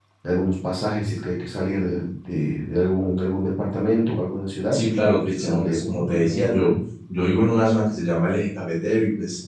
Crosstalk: present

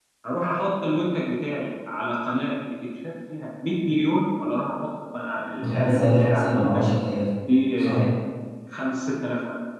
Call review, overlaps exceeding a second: present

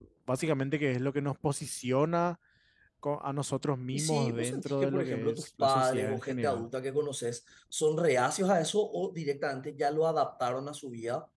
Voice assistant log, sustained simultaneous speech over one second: present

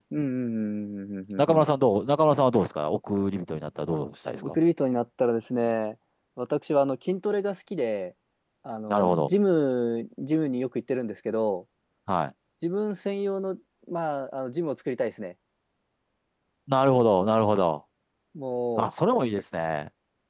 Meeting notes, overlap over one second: none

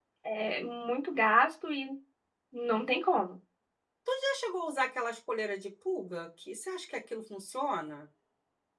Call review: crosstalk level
none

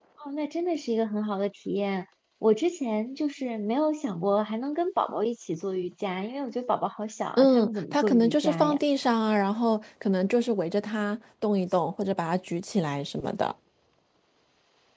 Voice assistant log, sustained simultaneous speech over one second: present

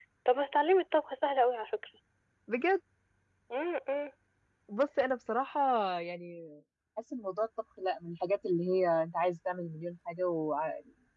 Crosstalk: none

